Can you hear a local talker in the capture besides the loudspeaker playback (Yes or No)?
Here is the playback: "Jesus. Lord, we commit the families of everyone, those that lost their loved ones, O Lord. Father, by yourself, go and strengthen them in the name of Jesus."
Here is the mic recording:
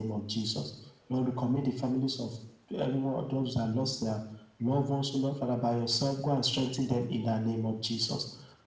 No